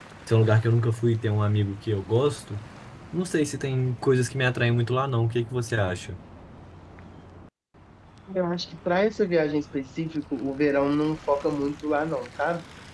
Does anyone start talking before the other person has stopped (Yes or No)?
No